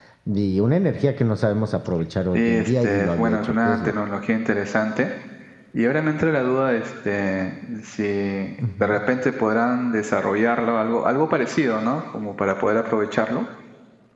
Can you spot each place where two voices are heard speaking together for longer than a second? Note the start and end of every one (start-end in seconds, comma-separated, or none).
2.3-3.9